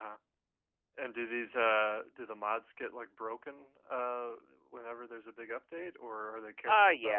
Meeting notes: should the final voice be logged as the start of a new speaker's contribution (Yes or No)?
Yes